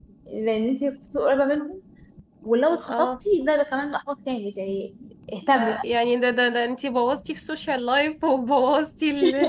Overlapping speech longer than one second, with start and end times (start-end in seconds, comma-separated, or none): none